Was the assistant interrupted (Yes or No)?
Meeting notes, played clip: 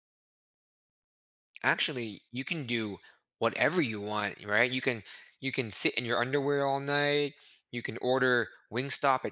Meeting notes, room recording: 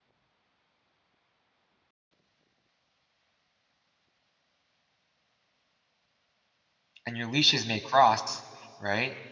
Yes